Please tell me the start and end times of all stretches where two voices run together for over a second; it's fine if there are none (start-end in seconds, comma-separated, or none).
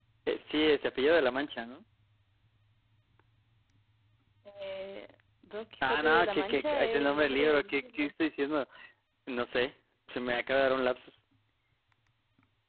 5.8-8.1